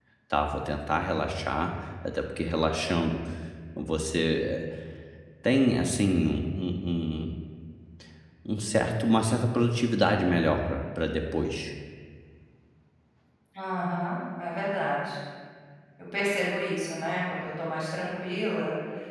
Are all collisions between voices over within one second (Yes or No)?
Yes